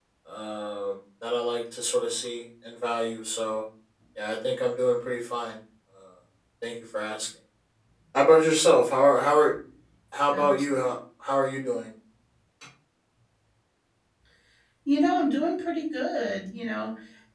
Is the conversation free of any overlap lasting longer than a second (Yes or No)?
Yes